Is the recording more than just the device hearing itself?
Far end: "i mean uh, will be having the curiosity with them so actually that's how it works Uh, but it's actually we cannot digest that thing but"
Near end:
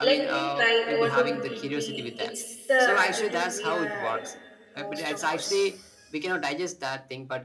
Yes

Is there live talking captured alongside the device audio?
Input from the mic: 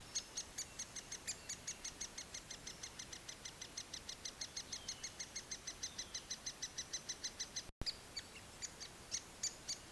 No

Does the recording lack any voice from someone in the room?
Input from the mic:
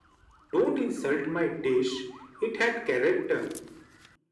Yes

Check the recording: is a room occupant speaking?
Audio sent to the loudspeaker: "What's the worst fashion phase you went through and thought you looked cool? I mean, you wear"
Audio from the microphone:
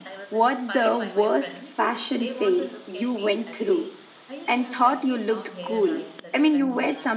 Yes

